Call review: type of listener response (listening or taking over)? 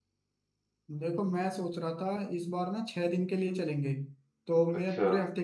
listening